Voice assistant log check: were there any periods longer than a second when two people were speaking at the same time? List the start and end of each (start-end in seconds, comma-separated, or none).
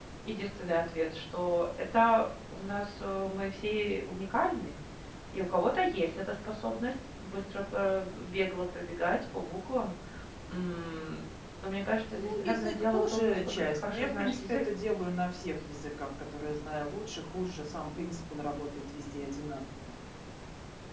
12.1-14.6